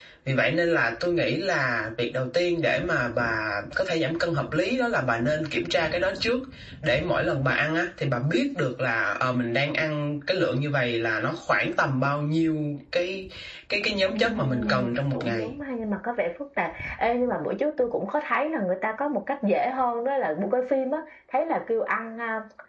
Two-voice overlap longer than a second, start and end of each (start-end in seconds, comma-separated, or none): 14.1-15.5